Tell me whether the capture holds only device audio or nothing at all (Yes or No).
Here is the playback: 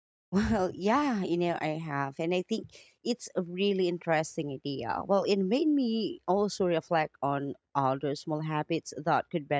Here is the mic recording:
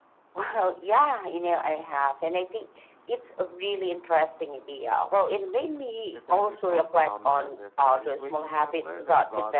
No